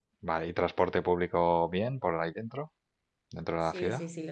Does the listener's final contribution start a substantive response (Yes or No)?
Yes